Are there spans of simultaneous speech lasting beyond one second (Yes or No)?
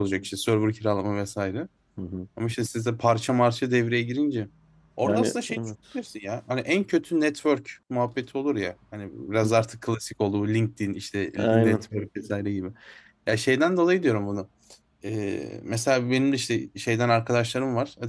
No